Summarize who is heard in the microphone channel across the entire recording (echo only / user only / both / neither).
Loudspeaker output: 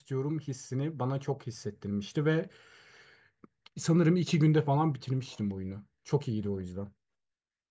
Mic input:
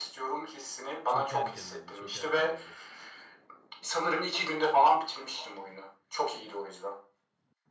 both